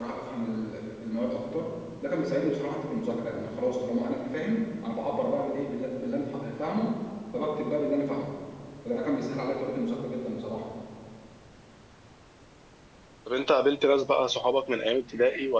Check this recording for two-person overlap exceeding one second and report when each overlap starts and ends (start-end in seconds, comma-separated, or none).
none